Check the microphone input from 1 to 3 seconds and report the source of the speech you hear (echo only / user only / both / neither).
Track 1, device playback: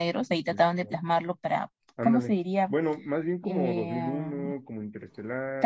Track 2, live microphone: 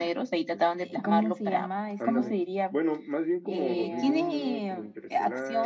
both